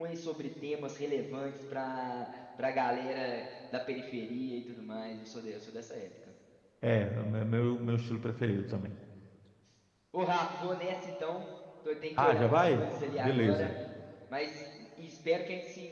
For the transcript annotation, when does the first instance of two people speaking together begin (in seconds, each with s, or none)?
12.2 s